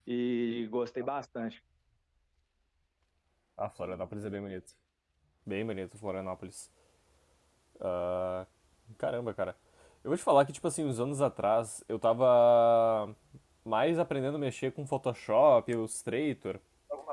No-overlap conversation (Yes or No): Yes